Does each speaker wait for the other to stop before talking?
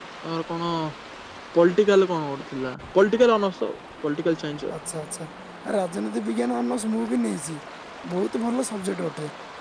Yes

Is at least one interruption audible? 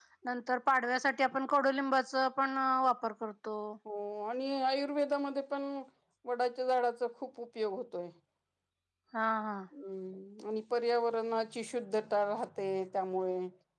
No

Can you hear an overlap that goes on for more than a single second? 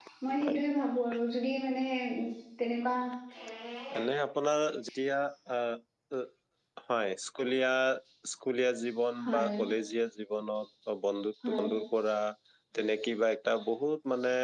No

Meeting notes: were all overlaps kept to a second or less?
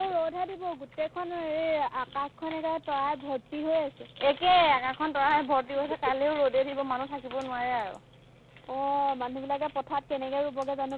Yes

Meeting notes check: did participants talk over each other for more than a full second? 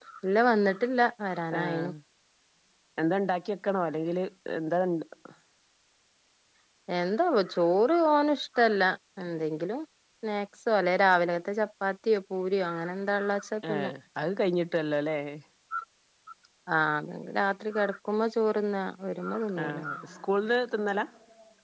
No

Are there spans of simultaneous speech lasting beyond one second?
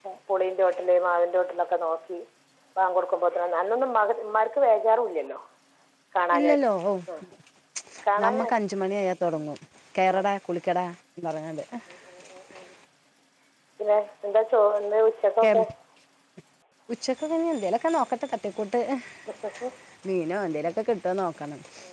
No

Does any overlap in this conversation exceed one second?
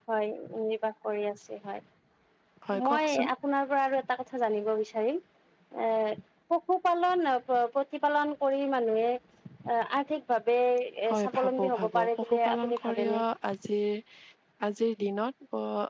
Yes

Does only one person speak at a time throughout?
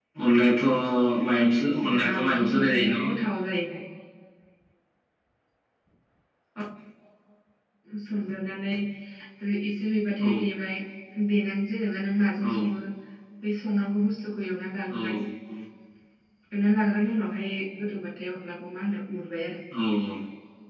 No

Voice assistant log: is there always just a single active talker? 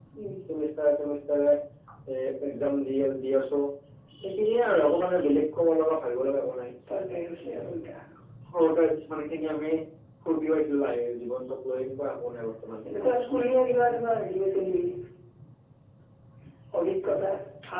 Yes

